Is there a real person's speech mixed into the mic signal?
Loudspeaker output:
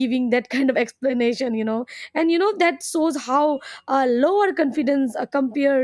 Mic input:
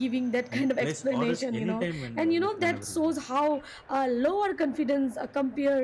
Yes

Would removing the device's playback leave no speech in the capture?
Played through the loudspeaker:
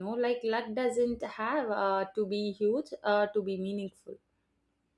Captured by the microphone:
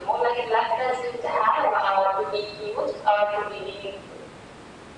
Yes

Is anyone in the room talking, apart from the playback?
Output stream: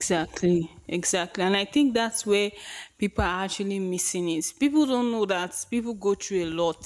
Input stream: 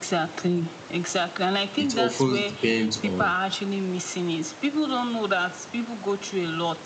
Yes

